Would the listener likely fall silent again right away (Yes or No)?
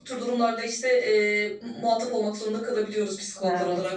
No